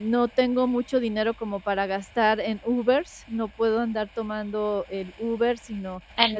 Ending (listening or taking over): listening